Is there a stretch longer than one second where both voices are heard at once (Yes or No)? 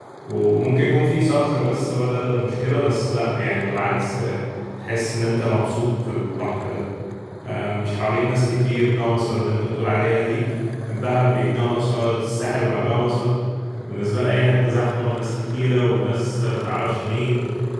No